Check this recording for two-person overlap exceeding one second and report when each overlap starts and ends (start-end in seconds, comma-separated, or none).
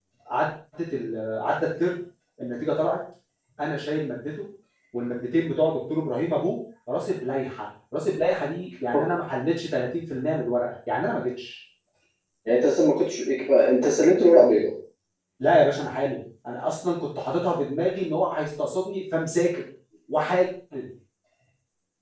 none